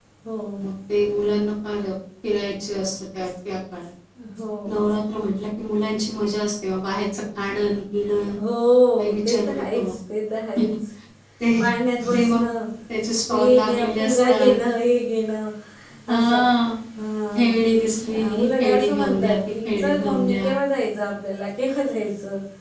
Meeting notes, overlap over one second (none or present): present